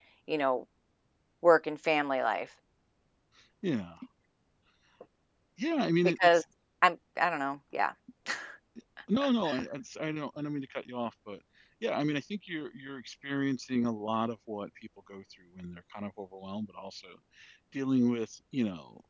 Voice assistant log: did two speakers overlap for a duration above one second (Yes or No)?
No